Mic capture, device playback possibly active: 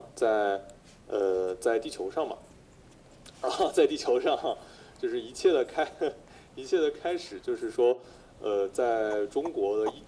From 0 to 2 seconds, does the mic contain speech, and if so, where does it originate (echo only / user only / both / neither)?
echo only